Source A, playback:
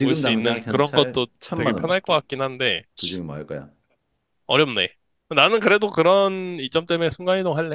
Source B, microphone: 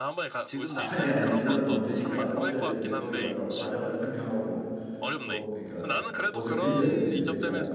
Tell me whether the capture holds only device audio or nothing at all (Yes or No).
No